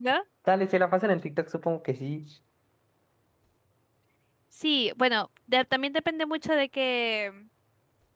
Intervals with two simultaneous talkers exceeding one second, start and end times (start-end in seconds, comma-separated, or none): none